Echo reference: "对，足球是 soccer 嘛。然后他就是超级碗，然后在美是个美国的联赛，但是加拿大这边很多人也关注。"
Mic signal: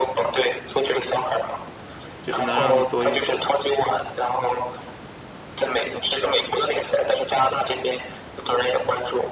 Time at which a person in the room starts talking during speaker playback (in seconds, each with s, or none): 2.2 s